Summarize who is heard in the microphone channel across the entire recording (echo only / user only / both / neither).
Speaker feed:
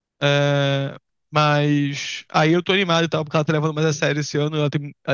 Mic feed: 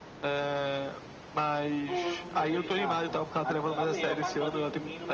both